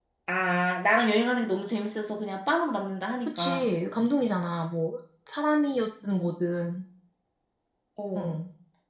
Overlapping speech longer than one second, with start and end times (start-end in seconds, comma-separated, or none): none